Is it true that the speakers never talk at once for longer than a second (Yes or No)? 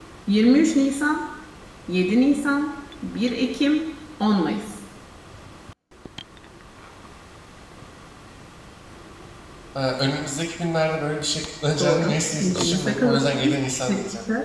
No